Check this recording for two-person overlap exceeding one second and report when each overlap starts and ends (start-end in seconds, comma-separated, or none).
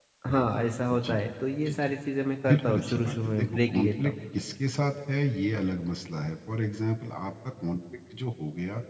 2.5-4.1